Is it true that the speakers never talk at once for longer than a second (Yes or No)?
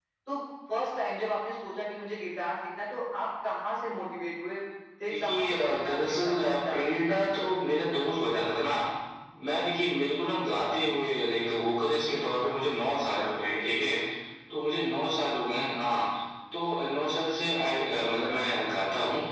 No